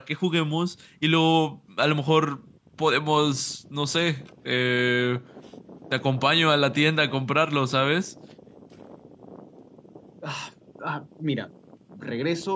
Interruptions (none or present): none